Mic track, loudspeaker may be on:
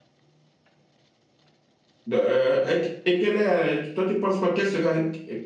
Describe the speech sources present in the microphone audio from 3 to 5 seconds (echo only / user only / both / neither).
user only